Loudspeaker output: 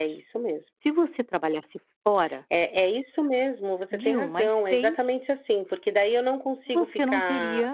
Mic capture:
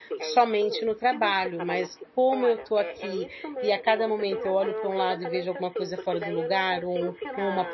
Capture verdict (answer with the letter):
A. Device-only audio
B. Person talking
B